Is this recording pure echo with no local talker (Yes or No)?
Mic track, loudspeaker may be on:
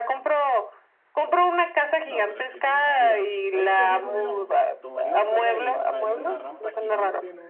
No